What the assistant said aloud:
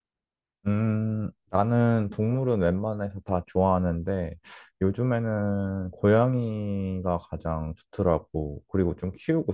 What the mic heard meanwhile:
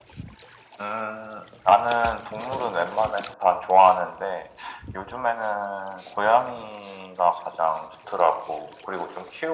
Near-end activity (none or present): none